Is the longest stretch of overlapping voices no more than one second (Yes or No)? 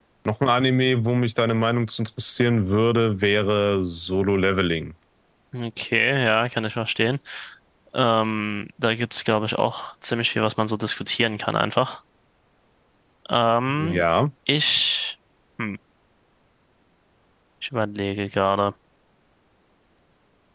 Yes